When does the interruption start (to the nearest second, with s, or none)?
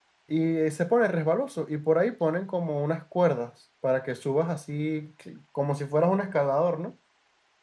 none